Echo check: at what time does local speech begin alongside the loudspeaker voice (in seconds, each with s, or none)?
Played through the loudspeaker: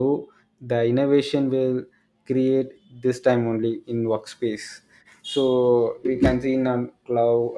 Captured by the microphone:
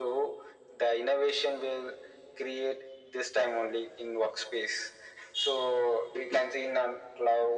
none